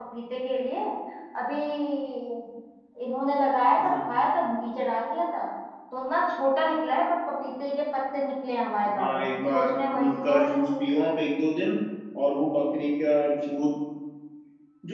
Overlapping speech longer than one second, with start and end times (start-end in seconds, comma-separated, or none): 8.9-10.7